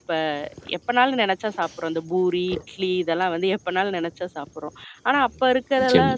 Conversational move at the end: listening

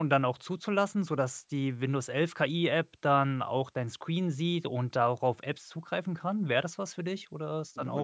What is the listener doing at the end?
taking over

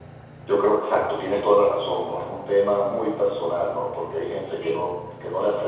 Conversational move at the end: listening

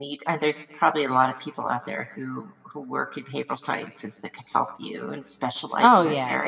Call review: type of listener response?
taking over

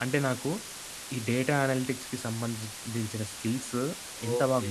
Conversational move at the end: taking over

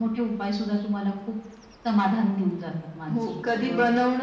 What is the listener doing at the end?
taking over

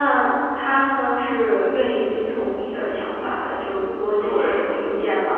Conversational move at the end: listening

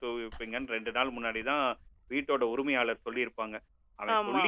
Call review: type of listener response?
listening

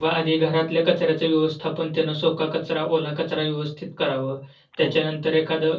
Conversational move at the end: listening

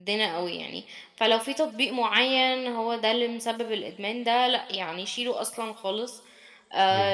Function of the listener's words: listening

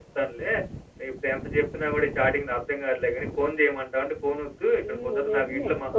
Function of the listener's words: taking over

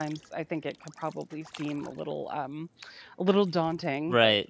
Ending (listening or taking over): taking over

